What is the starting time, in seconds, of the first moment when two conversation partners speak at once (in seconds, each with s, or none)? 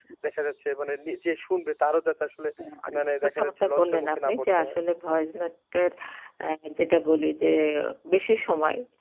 3.2 s